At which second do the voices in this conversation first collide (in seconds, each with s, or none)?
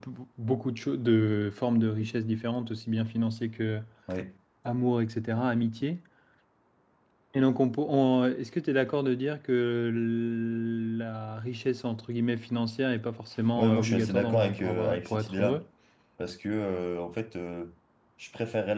13.6 s